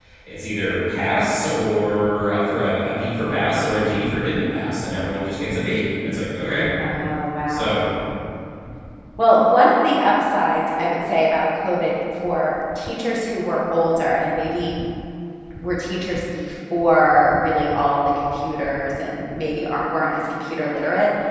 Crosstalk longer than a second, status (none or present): none